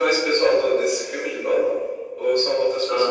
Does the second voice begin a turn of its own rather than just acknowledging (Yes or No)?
Yes